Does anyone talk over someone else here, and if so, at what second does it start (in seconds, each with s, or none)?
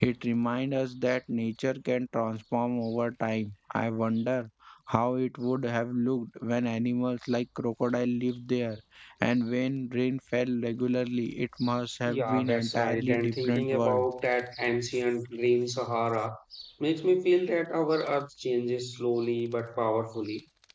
12.1 s